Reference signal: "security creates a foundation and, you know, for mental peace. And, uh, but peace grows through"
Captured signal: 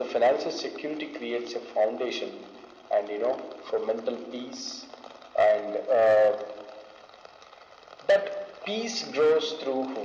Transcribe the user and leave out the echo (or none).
none